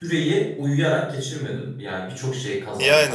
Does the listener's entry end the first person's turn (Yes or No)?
No